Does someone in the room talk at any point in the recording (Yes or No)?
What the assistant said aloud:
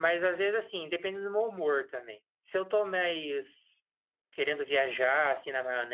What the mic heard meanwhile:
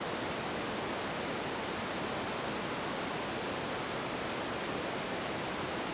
No